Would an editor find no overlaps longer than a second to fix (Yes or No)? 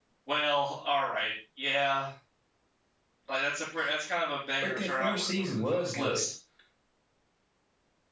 No